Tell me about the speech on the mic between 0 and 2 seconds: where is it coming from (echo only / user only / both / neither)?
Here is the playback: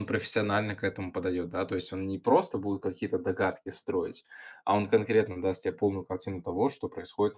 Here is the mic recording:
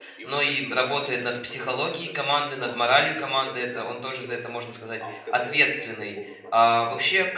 both